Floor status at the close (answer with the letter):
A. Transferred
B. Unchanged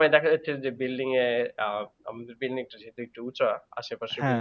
B